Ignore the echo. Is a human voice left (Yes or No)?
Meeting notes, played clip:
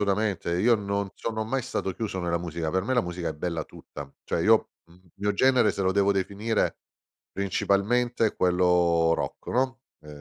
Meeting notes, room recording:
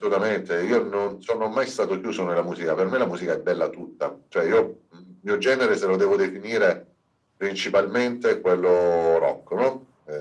No